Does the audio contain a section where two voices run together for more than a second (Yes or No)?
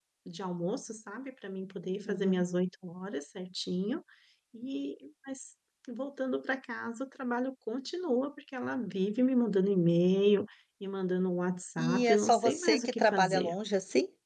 Yes